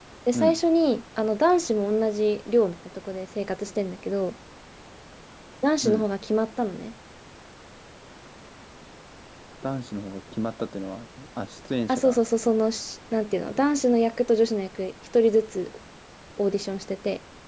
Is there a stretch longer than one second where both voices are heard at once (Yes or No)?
No